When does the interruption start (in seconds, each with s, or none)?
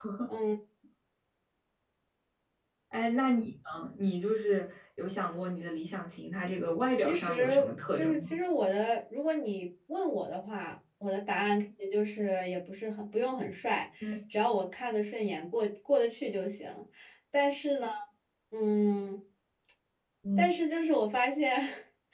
6.9 s